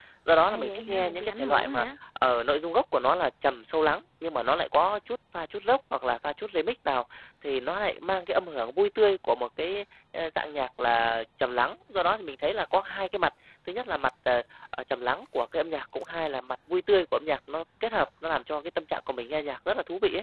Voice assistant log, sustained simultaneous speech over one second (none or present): present